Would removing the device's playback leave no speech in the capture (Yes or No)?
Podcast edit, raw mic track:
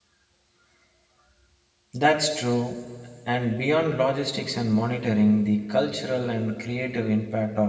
No